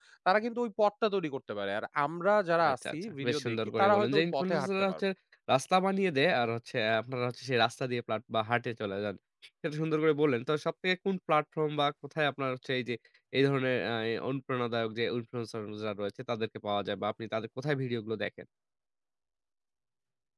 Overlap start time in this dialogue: 2.6 s

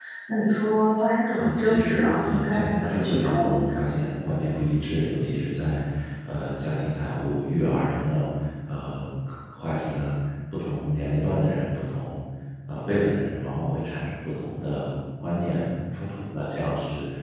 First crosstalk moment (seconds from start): 1.3 s

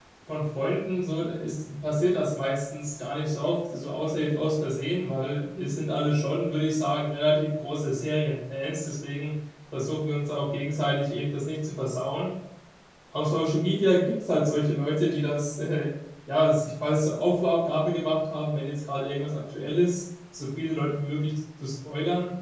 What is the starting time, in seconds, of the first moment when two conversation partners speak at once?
none

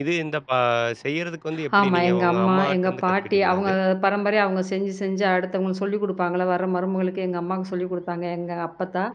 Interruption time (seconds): 1.8 s

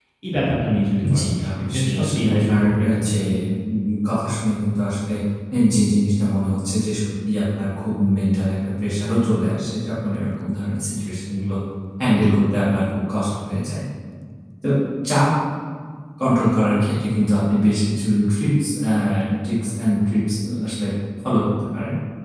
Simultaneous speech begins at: 1.2 s

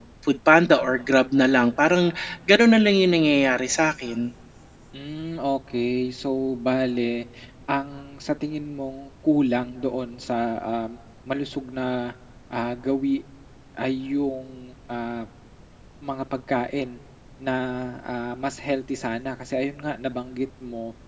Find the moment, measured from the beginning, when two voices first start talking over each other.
none

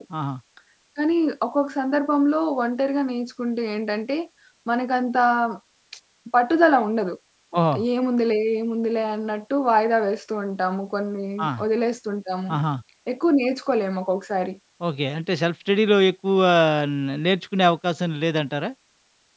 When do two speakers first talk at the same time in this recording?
none

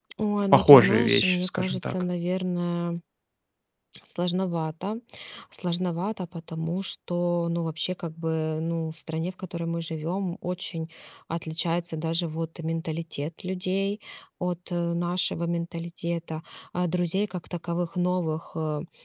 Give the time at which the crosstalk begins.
0.5 s

